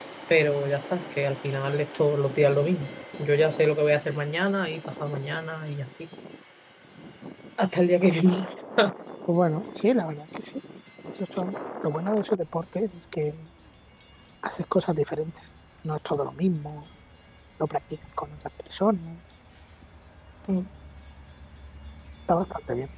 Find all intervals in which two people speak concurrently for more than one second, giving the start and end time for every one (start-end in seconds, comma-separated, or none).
none